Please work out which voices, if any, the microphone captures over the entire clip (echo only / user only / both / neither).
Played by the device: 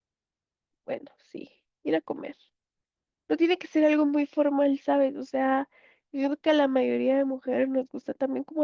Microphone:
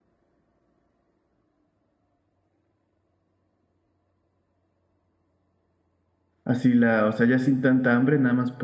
user only